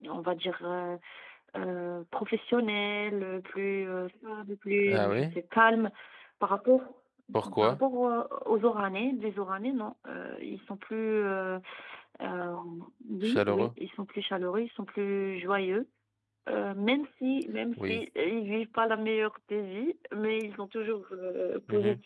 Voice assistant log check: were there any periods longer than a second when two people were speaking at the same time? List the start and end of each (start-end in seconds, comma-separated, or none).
none